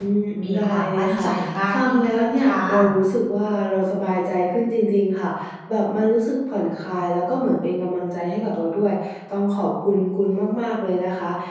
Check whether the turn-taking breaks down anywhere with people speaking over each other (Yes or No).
Yes